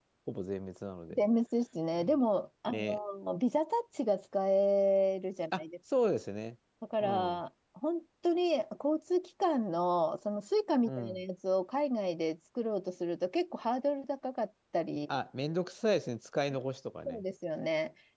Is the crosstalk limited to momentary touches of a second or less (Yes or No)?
Yes